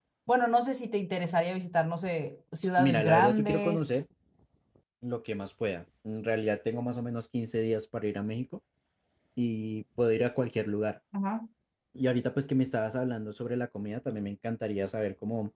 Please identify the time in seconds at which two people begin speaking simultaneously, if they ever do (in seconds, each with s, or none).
2.8 s